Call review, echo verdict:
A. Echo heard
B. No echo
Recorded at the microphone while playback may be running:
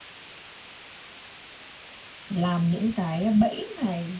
B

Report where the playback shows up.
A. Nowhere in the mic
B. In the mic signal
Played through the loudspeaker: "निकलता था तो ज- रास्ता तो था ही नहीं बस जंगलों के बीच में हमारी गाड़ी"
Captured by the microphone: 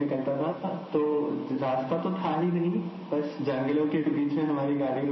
B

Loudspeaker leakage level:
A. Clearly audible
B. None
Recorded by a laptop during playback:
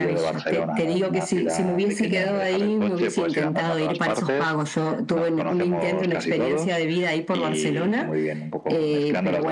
A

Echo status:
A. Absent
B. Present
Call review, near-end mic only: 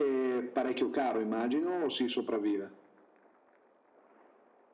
B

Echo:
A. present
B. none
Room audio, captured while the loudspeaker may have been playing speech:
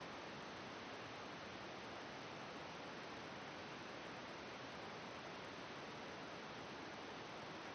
B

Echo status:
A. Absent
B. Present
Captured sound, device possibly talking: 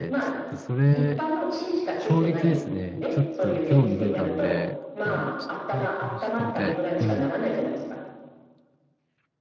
B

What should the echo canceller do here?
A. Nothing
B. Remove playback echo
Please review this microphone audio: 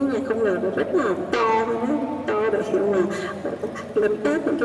B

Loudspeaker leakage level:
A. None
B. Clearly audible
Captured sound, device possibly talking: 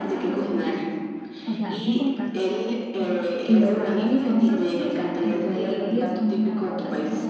B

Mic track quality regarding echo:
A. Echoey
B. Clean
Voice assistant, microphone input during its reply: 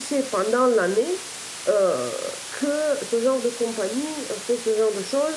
B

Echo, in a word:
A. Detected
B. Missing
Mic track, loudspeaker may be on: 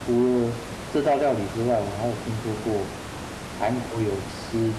B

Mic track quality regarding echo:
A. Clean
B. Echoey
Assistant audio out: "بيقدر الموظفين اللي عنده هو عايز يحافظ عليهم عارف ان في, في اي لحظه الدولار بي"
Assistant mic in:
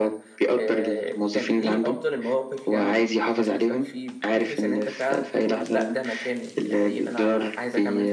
B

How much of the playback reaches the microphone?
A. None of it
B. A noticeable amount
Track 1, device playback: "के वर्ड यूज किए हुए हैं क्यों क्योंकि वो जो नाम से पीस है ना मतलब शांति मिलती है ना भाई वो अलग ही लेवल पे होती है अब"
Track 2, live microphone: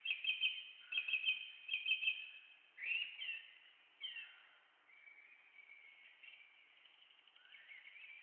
A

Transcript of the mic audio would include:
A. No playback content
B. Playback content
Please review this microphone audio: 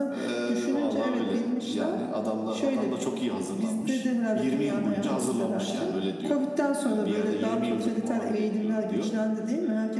B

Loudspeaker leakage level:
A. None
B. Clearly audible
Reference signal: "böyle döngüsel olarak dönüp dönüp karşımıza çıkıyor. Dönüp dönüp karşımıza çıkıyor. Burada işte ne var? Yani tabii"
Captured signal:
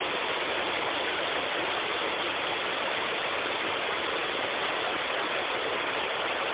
A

